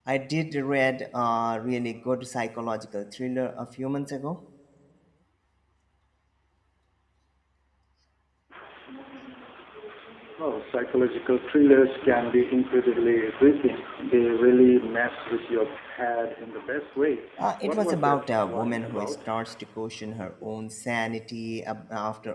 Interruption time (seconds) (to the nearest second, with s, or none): 18 s